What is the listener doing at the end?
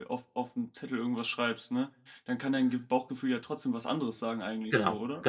taking over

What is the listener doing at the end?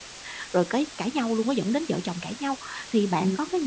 listening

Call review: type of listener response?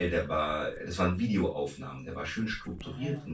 listening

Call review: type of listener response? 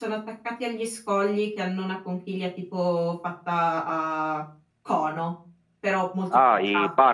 taking over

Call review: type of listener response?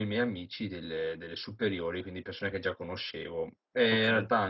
listening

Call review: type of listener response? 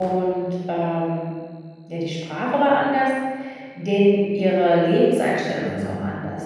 listening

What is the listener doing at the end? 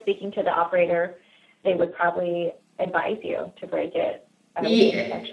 taking over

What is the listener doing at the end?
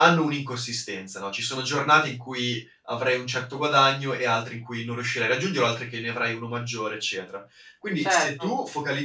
listening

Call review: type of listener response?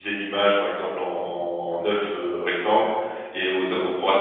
listening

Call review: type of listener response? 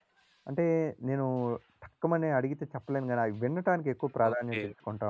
taking over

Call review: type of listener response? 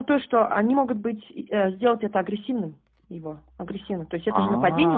listening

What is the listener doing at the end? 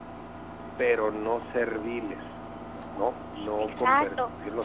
taking over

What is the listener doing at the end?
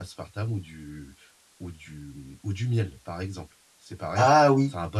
listening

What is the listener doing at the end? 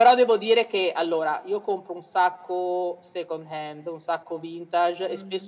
listening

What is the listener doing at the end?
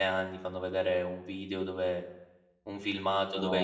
listening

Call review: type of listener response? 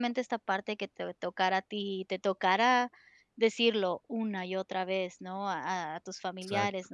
listening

